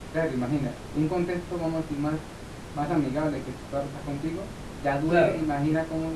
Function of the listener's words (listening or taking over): listening